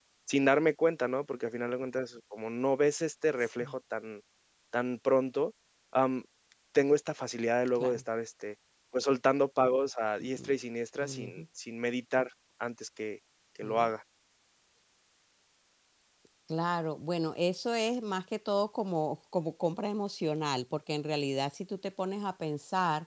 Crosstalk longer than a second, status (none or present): none